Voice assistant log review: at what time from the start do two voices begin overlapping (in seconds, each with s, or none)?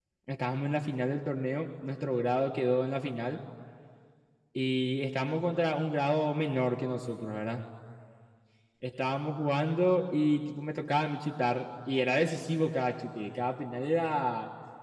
none